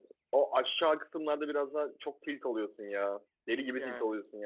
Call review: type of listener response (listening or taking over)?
listening